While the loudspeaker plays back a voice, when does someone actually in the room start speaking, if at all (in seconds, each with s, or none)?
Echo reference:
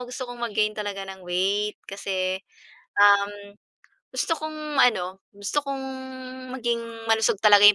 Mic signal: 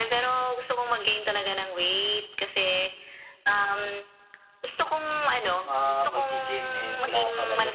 5.7 s